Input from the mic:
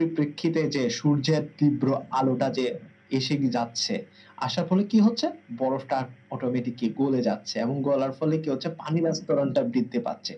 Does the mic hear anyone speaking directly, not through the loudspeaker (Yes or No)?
No